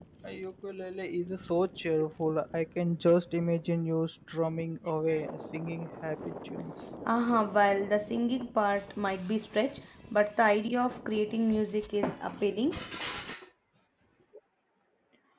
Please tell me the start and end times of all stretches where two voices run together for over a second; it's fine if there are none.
none

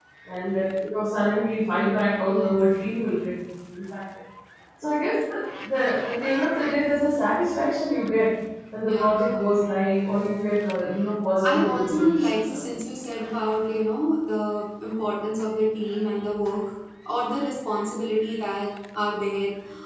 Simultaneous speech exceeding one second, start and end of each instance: 11.4-12.7

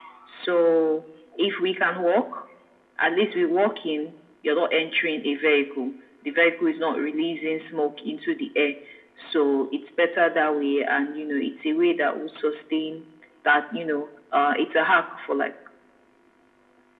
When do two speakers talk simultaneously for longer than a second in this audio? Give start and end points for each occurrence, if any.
none

